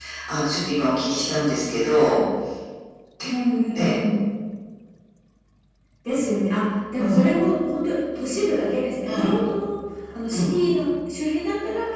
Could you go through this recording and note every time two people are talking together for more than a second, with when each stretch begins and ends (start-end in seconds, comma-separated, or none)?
none